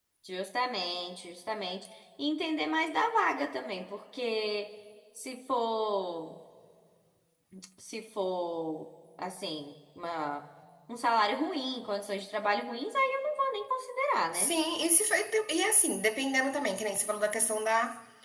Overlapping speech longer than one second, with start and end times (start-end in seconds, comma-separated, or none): none